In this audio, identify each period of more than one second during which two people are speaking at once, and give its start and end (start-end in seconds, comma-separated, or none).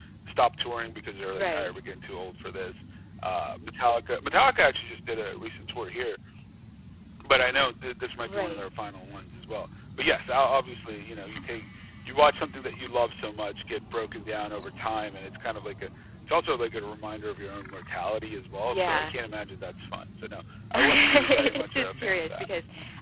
20.8-22.4